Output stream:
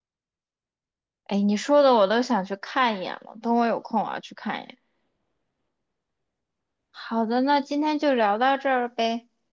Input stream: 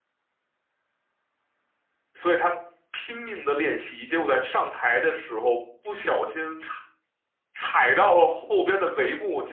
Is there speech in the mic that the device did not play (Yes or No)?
Yes